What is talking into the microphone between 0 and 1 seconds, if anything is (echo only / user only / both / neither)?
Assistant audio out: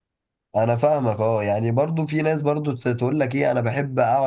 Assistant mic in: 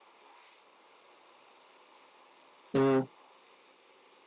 neither